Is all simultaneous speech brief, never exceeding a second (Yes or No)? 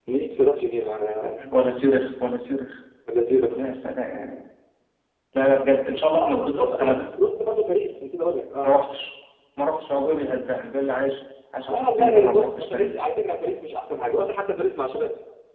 No